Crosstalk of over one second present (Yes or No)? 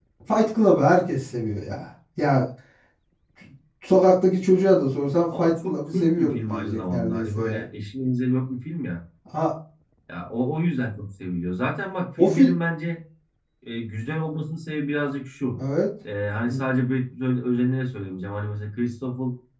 Yes